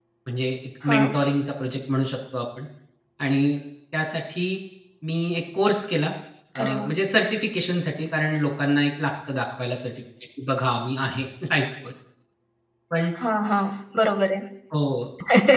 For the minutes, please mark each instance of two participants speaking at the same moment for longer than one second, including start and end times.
none

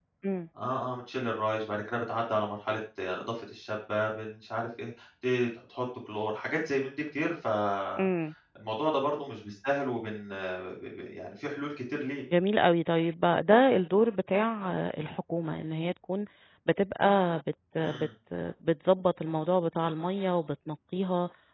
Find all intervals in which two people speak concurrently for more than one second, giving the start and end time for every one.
none

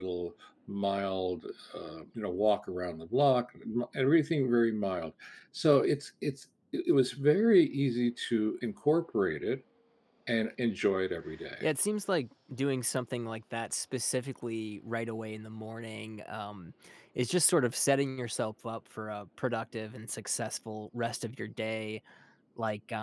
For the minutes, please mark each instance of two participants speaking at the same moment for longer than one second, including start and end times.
none

